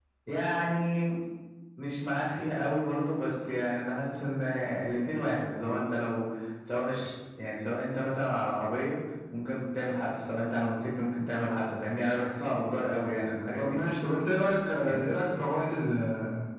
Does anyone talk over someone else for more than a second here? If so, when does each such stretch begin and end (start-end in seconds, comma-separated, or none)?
none